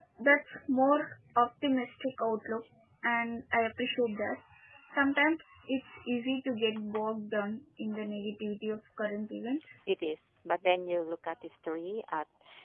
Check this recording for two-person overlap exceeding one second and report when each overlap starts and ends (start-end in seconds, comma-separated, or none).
none